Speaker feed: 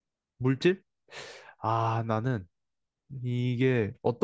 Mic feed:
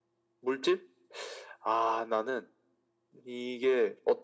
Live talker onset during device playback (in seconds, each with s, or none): none